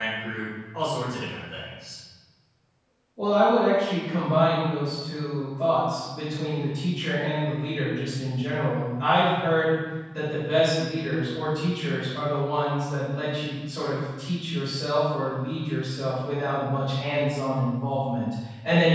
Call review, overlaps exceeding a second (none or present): none